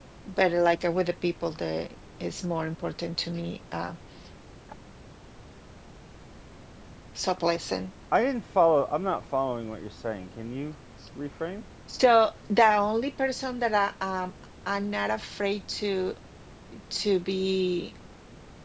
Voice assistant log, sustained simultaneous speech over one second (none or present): none